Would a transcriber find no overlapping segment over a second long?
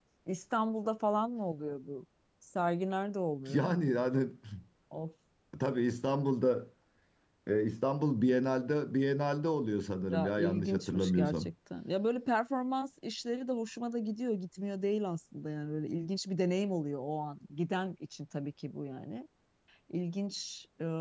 No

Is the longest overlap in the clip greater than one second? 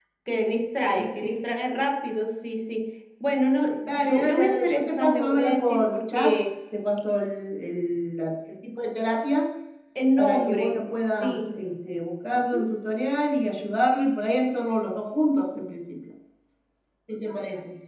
Yes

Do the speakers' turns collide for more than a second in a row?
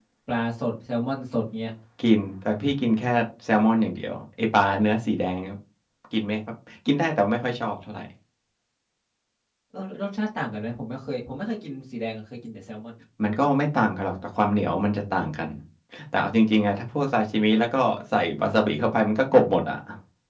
No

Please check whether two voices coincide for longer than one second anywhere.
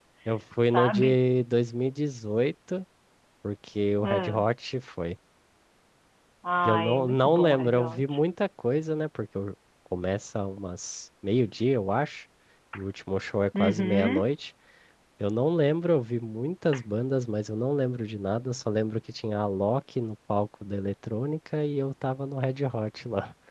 Yes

